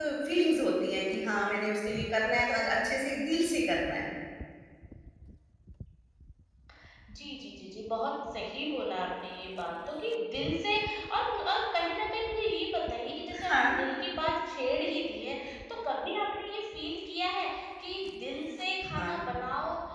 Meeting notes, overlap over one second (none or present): none